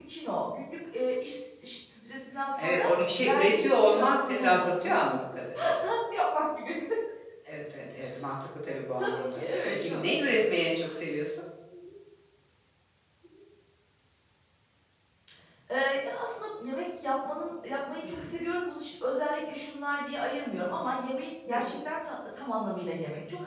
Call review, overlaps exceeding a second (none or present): present